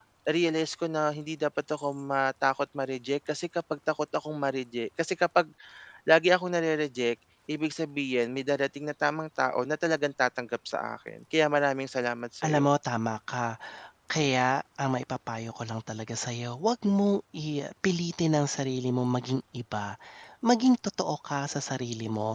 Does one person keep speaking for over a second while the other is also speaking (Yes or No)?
No